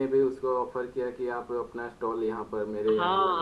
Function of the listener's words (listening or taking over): taking over